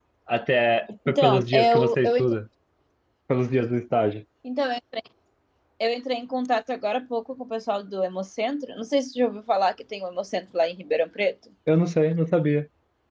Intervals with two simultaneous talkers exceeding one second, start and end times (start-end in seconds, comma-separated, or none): 1.1-2.4